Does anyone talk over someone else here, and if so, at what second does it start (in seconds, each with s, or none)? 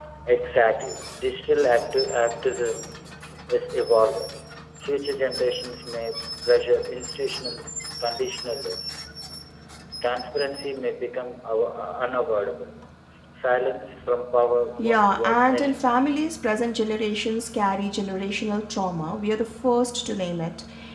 14.8 s